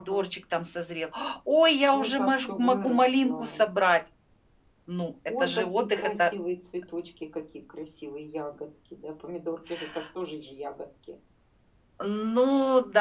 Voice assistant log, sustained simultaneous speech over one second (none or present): present